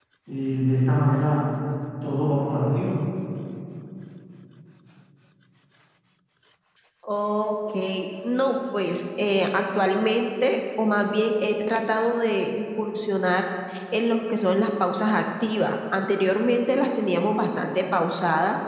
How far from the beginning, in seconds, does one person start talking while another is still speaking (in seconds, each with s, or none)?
none